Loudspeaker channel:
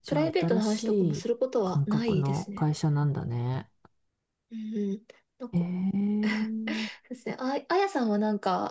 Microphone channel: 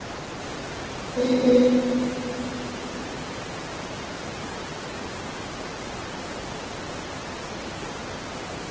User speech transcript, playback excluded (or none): うんうん。